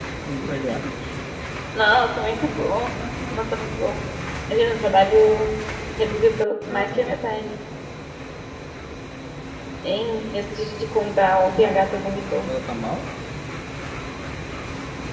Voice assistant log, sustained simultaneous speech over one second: none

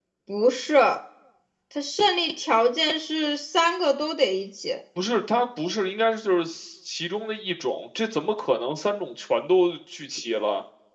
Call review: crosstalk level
none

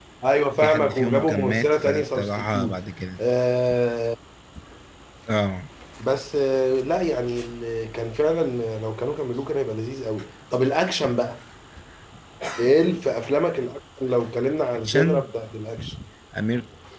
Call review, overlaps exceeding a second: present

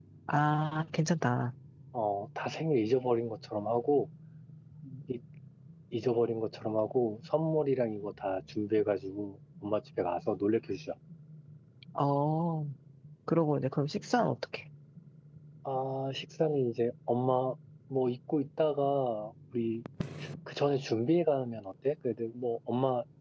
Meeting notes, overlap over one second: none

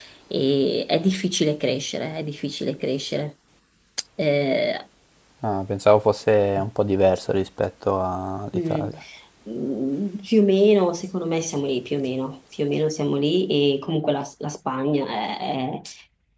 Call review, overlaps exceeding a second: none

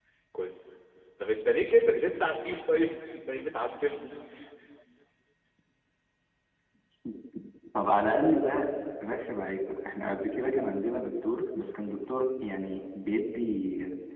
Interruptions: none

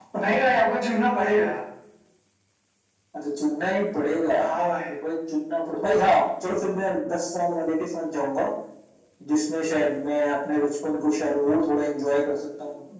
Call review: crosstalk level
none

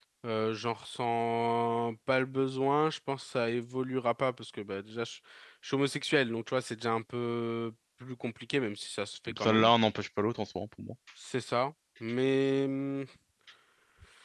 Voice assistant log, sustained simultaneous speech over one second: none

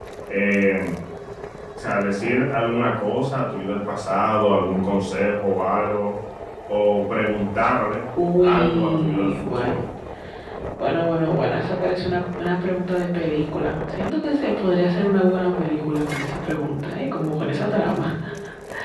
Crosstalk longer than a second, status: present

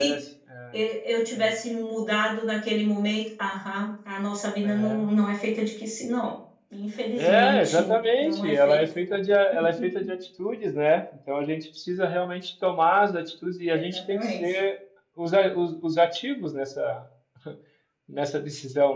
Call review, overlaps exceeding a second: present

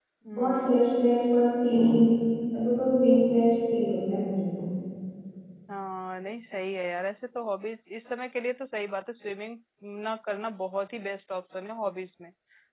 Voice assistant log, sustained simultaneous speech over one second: none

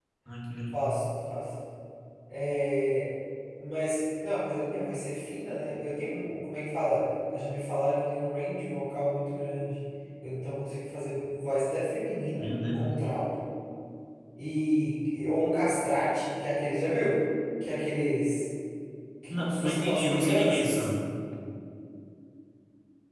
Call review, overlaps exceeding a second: present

